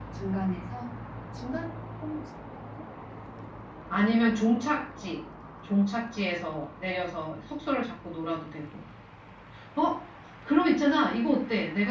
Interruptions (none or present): none